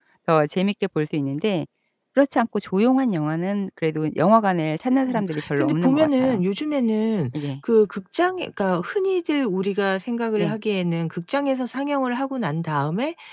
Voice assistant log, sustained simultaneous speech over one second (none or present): present